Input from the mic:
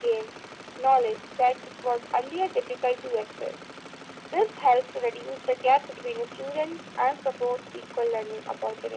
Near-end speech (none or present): none